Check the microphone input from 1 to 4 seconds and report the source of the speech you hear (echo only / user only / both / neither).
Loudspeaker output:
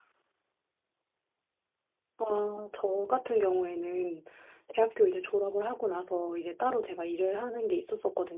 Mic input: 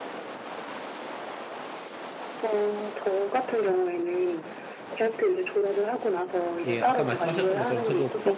echo only